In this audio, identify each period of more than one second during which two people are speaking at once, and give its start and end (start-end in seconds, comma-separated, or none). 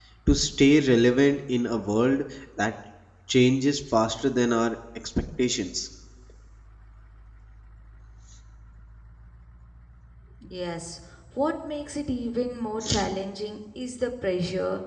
none